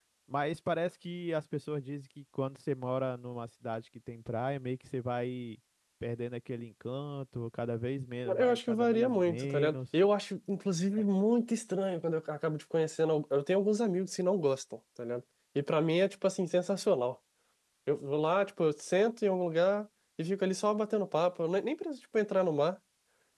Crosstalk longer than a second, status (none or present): present